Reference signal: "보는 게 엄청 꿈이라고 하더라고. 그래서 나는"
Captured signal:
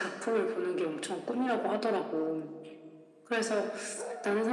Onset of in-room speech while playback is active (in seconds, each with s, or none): none